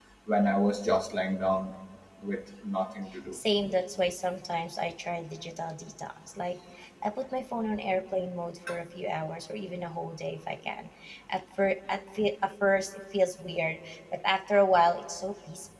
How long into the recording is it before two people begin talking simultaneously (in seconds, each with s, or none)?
none